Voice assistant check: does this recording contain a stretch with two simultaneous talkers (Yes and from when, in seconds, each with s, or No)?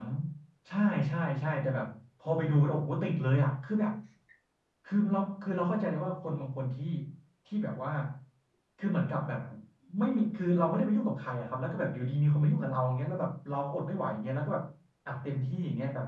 No